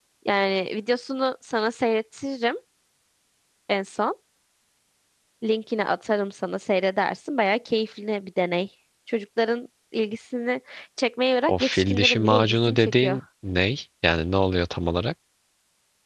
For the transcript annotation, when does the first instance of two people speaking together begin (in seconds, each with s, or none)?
11.5 s